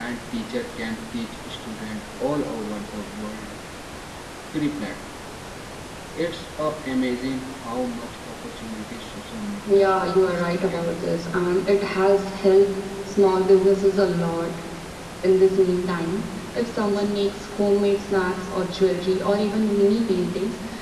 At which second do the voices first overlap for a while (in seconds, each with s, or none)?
9.6 s